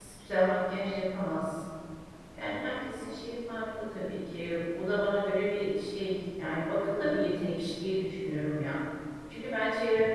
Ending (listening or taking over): listening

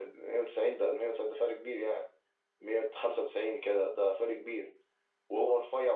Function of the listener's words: listening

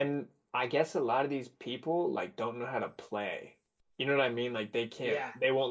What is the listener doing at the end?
listening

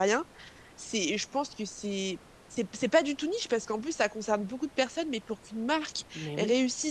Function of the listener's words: listening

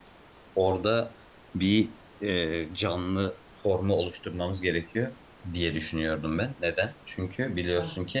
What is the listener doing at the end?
listening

